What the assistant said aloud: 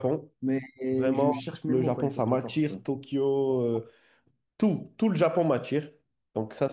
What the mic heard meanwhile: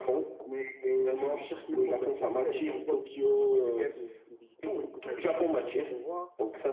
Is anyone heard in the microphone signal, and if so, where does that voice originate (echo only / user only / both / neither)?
both